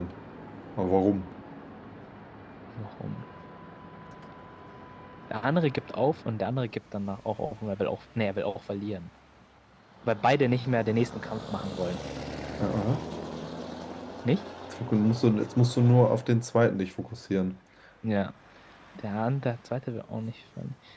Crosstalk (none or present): none